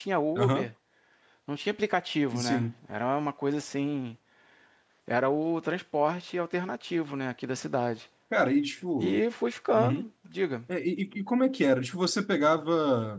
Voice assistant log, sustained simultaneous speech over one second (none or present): none